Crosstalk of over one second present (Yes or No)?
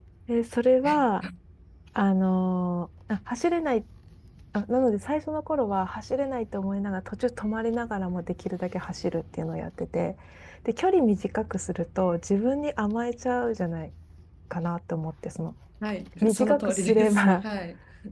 Yes